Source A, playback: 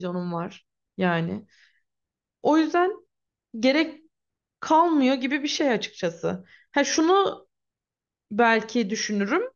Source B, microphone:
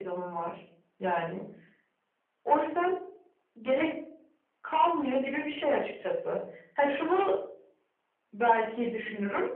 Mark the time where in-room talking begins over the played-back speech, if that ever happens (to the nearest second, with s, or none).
none